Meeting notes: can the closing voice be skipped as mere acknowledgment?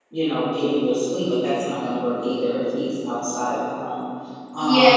No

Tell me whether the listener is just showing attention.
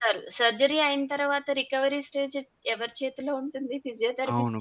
No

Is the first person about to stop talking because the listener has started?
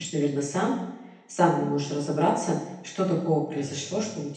No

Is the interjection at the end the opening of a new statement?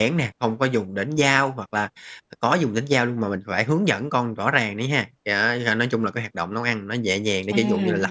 No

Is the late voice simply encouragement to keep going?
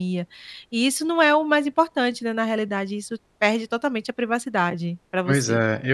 No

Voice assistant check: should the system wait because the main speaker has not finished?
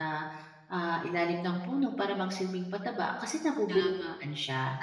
No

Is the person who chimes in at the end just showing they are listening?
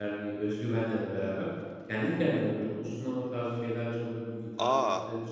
Yes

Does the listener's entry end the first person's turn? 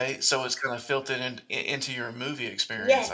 Yes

